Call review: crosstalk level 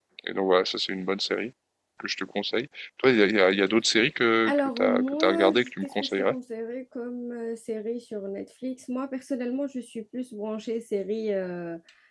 present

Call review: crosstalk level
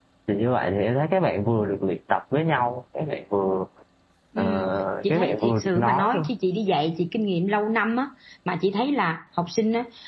present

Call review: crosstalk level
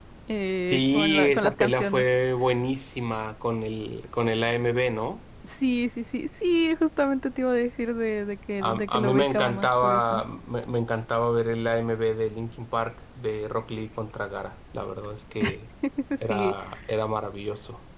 present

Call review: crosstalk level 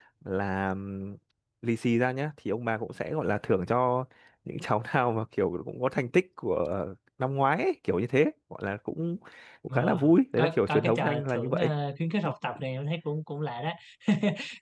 present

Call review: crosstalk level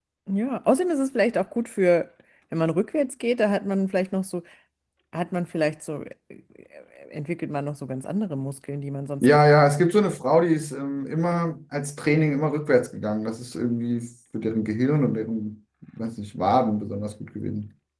none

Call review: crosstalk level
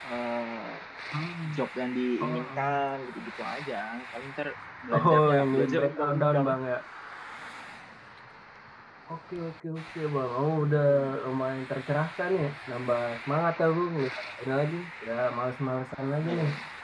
present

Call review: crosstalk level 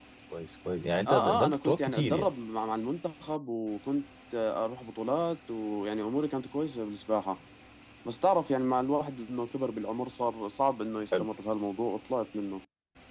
present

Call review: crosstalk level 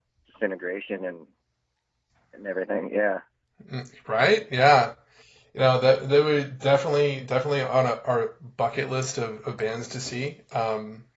none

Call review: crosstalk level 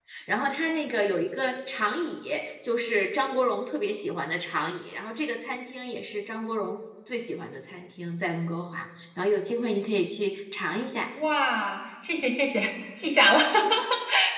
none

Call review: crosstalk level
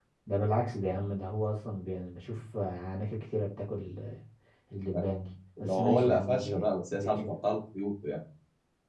present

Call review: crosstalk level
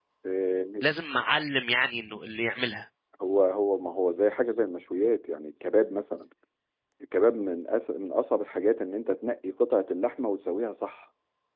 none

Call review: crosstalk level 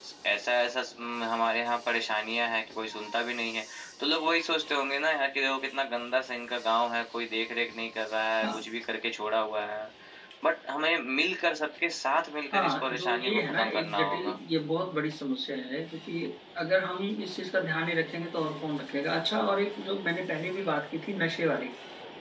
present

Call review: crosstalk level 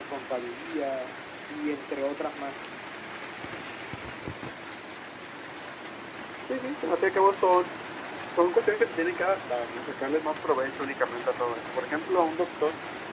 none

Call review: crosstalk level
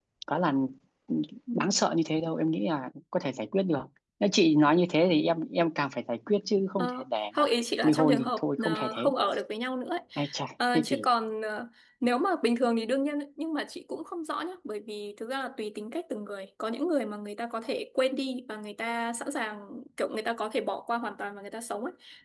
present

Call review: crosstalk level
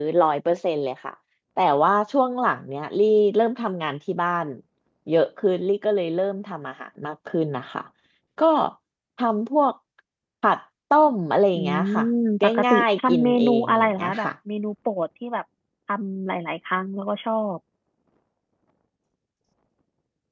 present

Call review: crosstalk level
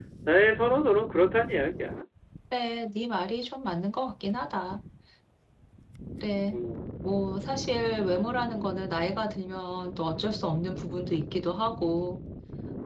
none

